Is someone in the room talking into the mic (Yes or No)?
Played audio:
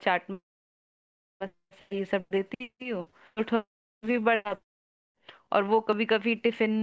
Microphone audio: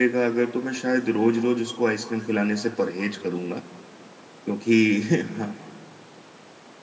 Yes